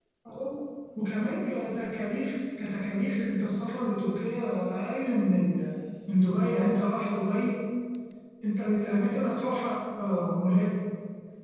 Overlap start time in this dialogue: none

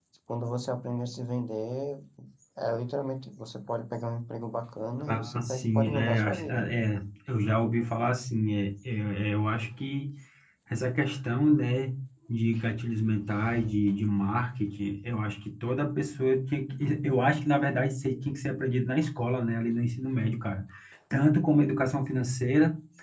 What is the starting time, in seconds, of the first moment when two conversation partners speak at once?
5.1 s

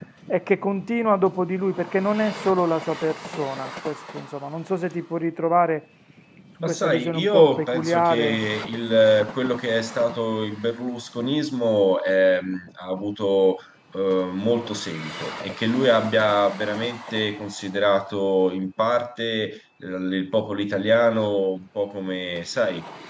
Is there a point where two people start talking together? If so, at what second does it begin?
6.6 s

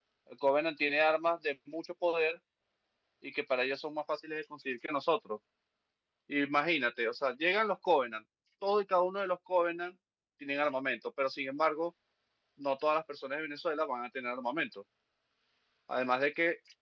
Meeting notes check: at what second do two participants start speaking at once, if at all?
none

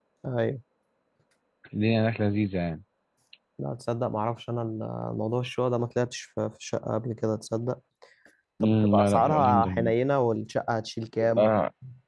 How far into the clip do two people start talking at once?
8.6 s

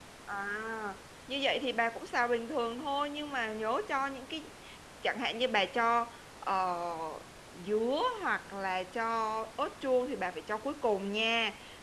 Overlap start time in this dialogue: none

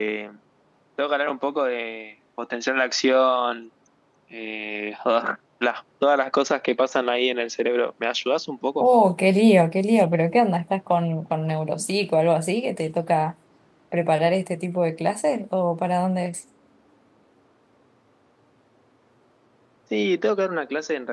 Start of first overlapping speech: none

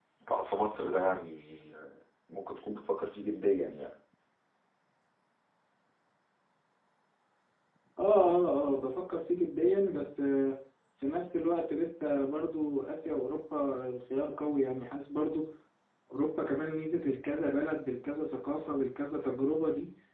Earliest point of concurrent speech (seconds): none

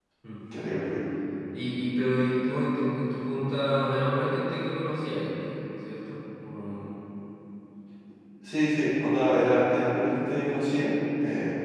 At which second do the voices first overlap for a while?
none

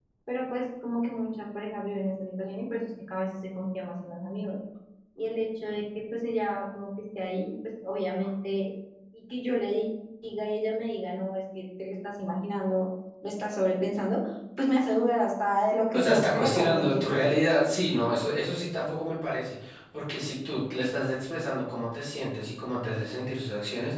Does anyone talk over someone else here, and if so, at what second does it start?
15.9 s

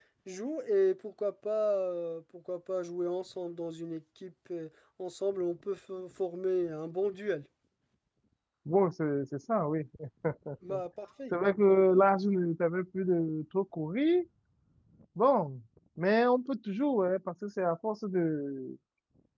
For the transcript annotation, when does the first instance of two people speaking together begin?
none

